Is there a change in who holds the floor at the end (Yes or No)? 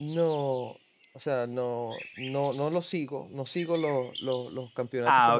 No